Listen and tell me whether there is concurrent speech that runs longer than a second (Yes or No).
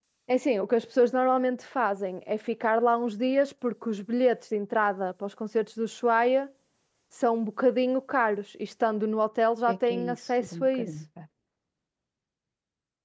Yes